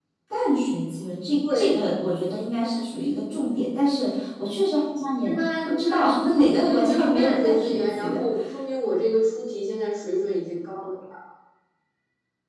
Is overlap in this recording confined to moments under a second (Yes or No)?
No